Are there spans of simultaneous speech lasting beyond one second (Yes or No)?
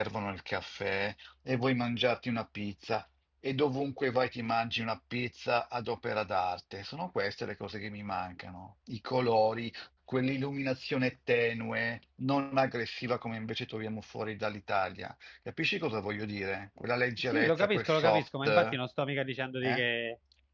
Yes